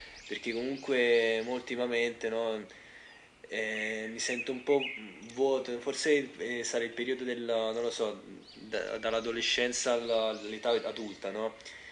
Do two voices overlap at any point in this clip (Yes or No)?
No